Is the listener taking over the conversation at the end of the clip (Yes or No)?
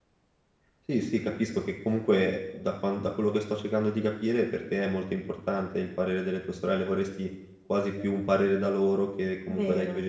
No